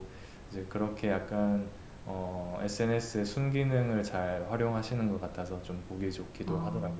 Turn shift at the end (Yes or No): Yes